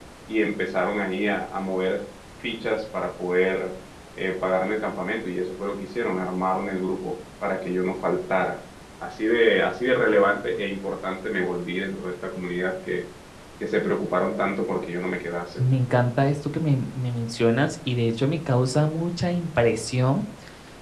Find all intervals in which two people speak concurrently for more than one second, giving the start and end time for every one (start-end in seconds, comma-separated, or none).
none